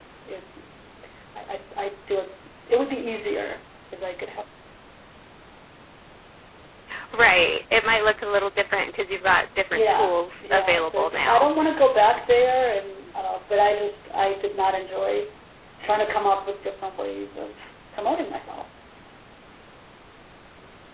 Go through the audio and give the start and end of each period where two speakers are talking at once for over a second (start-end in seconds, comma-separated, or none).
9.7-11.5